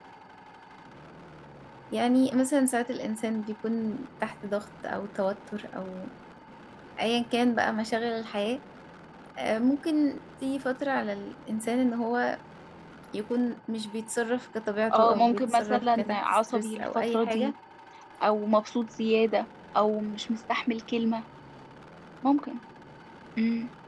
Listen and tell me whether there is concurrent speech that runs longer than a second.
Yes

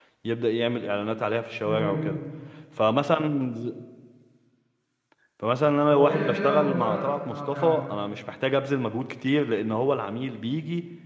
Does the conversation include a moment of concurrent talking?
Yes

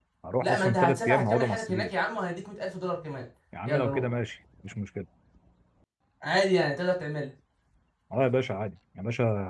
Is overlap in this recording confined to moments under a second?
No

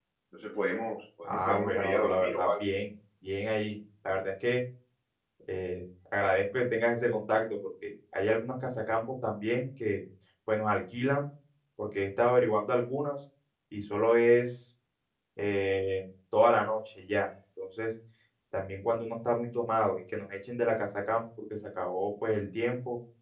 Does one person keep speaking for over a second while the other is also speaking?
Yes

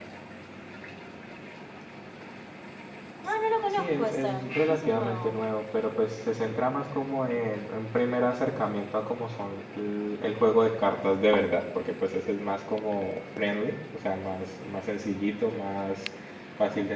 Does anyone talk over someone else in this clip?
Yes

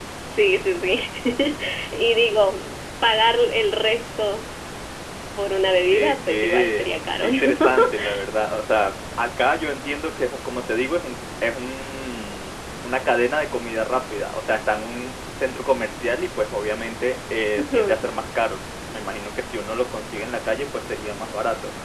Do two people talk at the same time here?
Yes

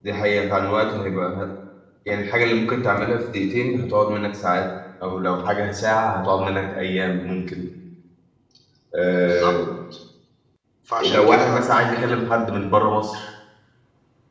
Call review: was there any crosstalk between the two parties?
Yes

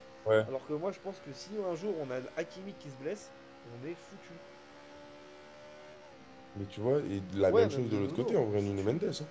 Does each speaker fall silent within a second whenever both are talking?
No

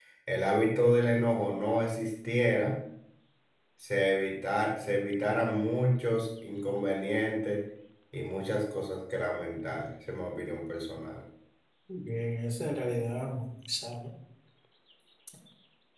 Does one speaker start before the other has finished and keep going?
No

